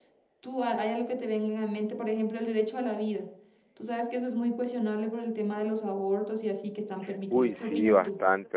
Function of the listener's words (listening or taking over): taking over